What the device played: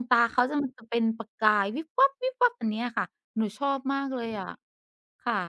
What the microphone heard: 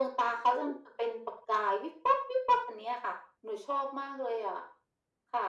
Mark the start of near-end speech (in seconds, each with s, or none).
none